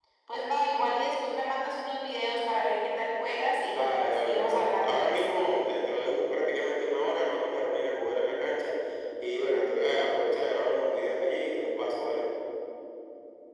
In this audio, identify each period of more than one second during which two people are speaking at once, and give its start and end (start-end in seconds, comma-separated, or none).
3.7-5.5